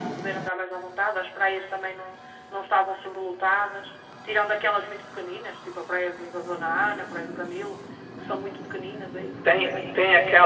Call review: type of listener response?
taking over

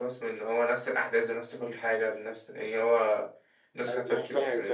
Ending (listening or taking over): taking over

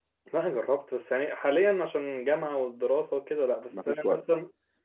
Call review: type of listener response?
listening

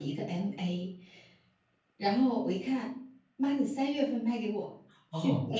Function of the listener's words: taking over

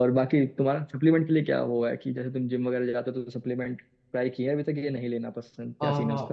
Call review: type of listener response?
taking over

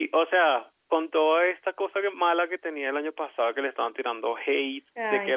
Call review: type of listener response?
listening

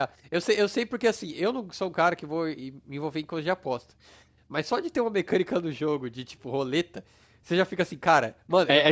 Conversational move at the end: taking over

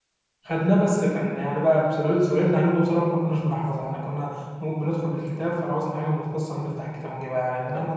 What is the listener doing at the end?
taking over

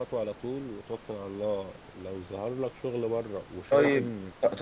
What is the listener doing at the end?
taking over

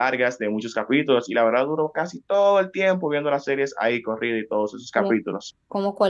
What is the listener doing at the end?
taking over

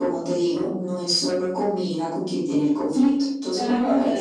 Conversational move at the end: taking over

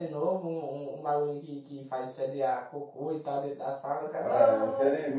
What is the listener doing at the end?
taking over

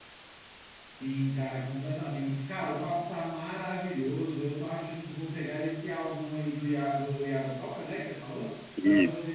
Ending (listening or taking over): listening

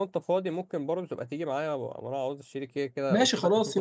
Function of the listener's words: taking over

